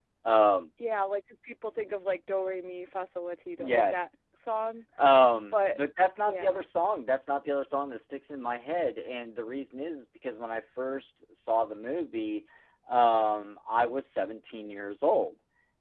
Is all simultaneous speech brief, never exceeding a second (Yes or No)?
Yes